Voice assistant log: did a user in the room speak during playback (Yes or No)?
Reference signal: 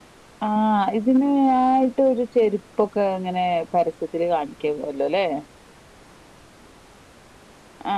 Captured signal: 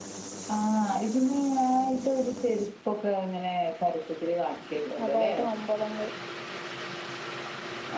Yes